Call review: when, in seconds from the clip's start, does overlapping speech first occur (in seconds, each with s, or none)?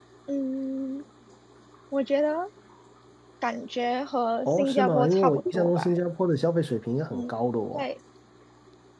4.4 s